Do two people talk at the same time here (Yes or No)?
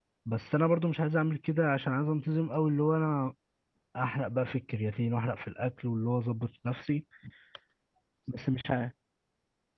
No